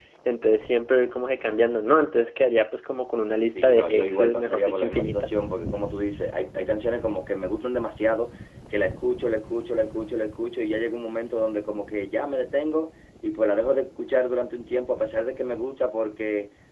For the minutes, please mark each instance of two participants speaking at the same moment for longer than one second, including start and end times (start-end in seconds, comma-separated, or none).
3.6-5.3